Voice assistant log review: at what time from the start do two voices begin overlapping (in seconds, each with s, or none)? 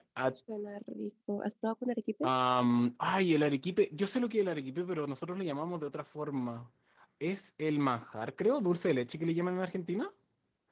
none